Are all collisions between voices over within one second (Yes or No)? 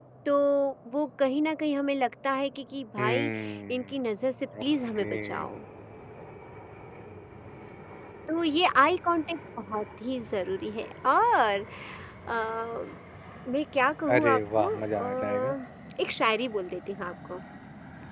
No